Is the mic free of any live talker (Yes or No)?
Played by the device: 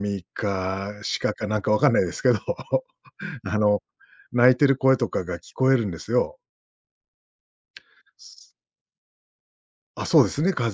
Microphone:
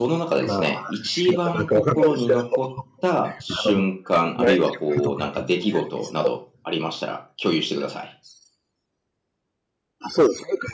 No